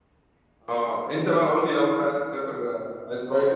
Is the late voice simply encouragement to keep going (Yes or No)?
No